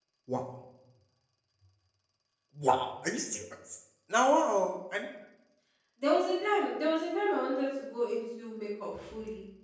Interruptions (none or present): none